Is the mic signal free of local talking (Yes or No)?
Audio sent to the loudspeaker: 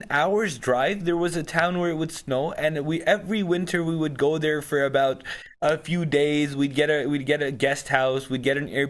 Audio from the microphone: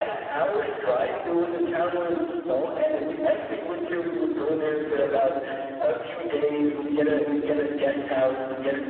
Yes